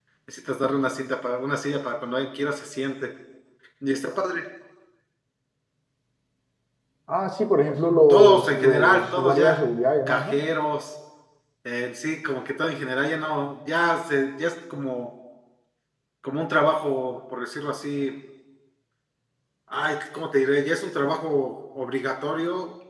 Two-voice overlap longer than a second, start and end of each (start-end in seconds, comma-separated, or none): 8.1-9.6